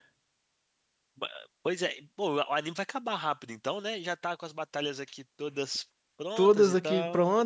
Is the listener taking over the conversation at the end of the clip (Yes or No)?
Yes